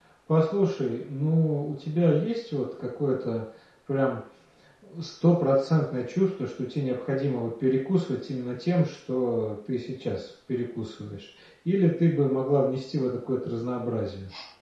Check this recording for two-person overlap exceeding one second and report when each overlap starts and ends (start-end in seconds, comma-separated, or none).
none